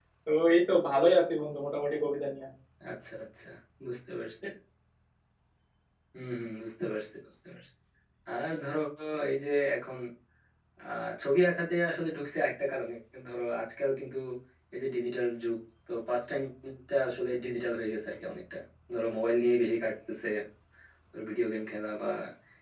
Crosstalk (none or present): none